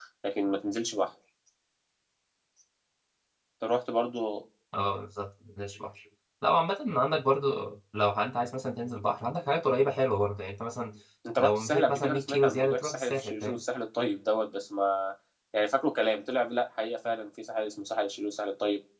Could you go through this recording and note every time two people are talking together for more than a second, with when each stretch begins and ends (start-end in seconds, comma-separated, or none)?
11.4-13.6